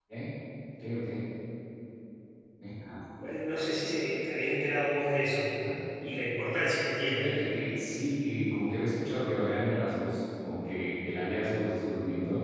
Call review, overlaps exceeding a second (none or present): none